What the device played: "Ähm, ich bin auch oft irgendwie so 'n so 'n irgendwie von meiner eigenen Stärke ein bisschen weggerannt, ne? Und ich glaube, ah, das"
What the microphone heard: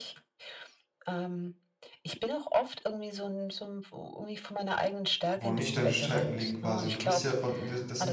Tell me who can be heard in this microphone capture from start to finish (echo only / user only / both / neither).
both